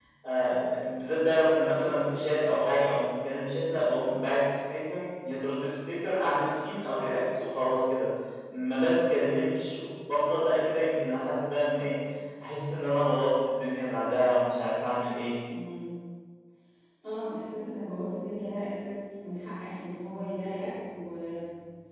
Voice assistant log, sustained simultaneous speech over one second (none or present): none